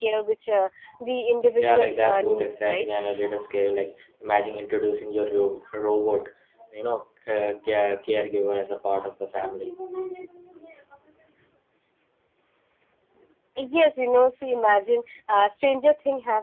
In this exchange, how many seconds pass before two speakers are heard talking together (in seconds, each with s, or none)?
1.6 s